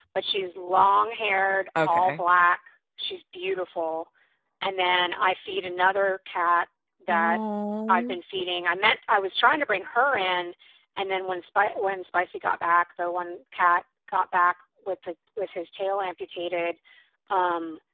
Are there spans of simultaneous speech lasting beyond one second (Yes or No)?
No